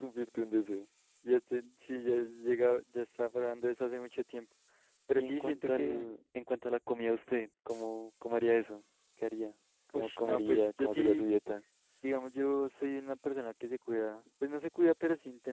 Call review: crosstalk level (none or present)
present